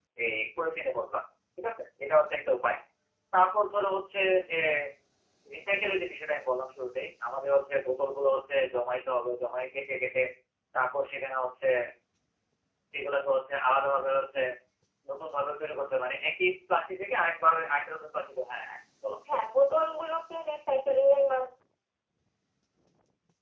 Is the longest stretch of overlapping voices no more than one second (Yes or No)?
Yes